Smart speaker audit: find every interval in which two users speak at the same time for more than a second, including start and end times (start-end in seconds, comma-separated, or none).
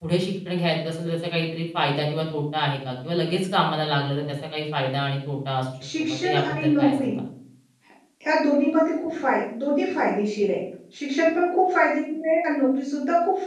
5.8-7.1